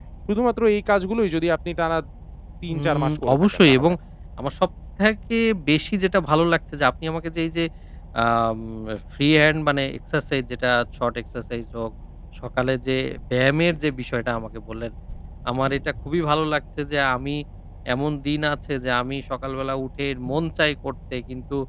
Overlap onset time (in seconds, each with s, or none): 2.7 s